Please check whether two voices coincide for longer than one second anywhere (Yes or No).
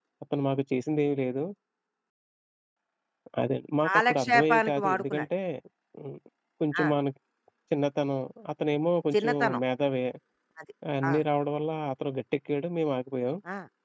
Yes